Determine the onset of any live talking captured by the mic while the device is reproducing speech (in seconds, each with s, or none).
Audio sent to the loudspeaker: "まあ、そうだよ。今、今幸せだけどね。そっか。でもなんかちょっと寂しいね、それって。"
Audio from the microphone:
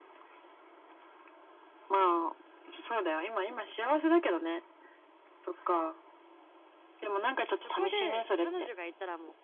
7.5 s